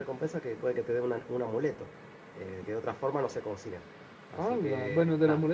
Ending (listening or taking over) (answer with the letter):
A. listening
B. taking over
B